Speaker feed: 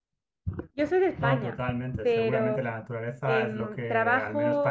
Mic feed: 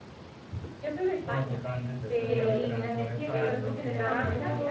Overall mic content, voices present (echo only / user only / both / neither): both